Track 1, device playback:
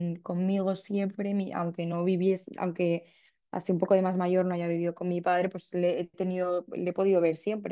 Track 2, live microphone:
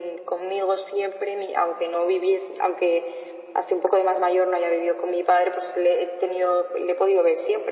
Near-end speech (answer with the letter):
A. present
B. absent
B